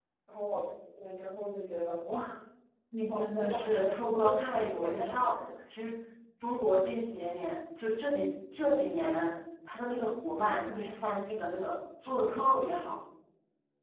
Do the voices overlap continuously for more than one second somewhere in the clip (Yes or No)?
Yes